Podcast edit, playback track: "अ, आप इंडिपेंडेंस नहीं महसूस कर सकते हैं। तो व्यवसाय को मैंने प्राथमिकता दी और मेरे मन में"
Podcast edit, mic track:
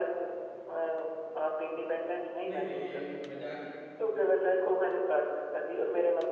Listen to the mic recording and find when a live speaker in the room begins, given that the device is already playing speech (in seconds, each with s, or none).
2.5 s